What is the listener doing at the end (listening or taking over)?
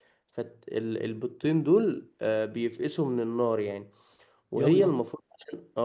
listening